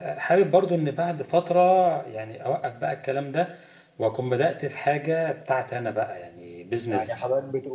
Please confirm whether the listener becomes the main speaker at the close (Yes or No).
Yes